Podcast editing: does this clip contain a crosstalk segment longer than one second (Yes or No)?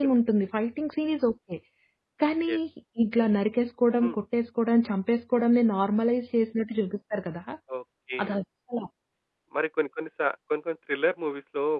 No